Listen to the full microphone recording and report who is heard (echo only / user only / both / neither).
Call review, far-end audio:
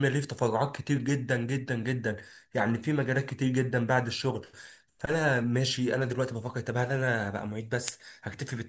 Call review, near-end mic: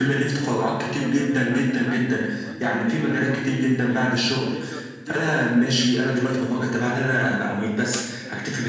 both